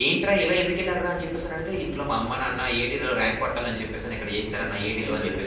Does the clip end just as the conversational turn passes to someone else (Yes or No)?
Yes